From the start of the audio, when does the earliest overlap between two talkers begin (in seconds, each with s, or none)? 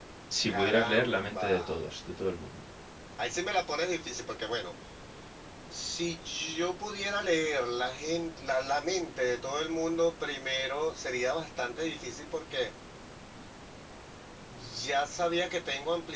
0.5 s